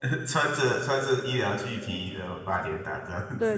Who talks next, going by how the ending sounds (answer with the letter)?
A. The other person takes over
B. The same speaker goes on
A